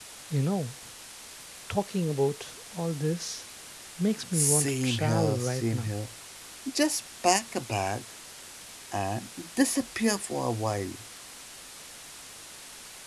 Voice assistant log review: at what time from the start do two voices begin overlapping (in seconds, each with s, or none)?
4.3 s